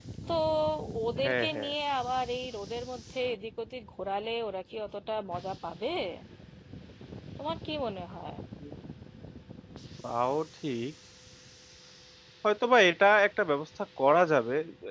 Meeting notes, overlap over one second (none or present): none